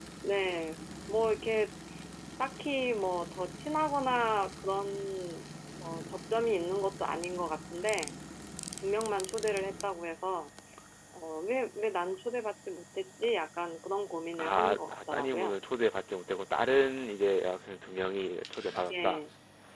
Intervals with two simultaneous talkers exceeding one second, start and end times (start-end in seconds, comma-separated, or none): 14.4-15.6